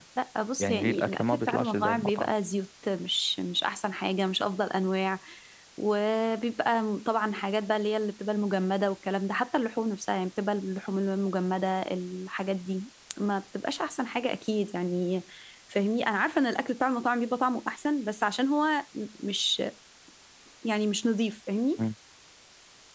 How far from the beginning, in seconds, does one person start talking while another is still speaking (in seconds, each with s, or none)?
0.6 s